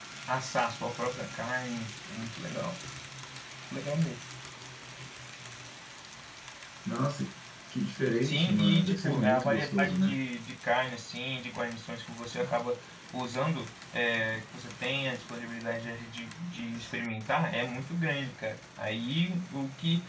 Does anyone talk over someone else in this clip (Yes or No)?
Yes